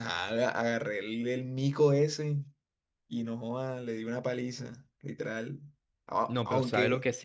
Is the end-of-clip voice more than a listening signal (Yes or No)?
Yes